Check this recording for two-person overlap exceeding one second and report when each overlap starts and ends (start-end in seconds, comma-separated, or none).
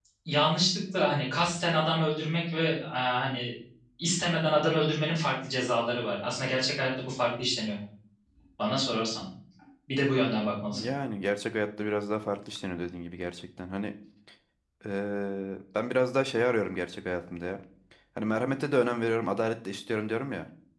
none